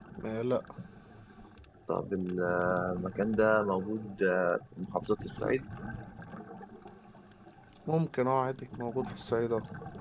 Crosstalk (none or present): none